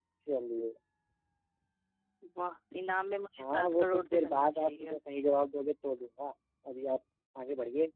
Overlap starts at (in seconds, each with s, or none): 3.4 s